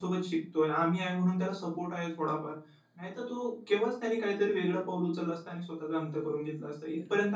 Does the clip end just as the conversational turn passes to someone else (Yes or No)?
Yes